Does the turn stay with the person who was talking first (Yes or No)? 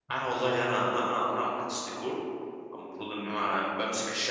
Yes